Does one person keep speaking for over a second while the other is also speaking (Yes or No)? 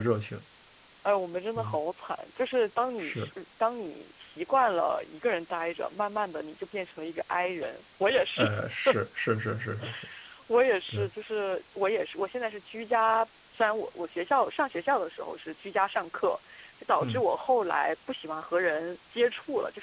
No